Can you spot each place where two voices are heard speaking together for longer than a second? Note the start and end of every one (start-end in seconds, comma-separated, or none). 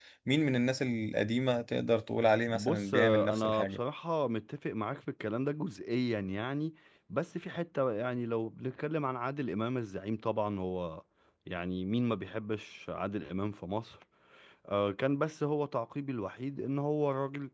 2.5-3.8